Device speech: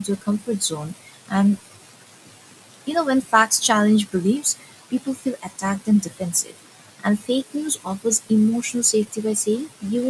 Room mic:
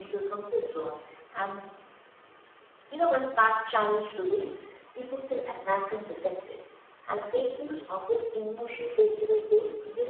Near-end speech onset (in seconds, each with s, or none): none